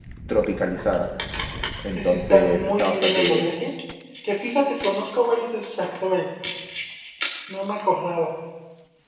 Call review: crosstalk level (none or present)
present